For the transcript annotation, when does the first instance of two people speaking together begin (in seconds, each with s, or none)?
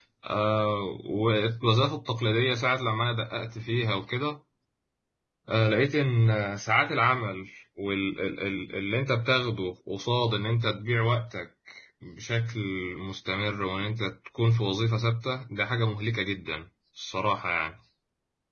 none